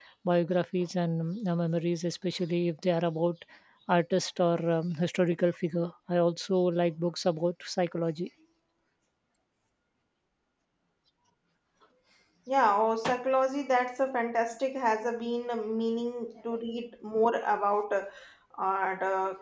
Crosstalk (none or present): none